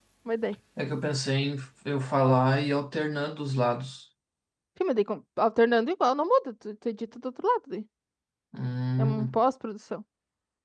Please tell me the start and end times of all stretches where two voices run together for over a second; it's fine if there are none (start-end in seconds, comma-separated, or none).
none